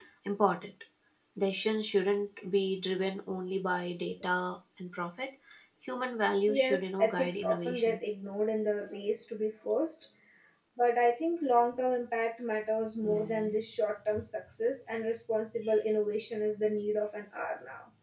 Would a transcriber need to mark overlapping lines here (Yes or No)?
Yes